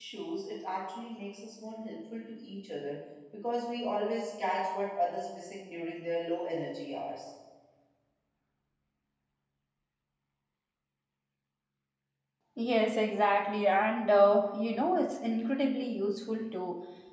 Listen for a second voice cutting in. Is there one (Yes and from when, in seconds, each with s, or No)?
No